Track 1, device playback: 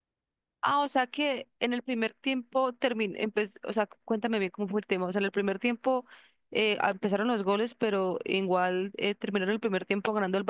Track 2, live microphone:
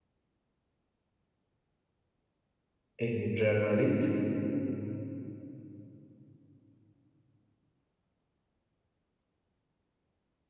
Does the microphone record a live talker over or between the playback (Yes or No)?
Yes